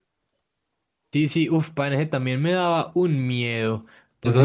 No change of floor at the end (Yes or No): No